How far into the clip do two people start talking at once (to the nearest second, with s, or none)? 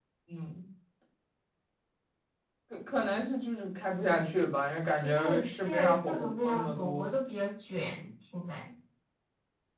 5 s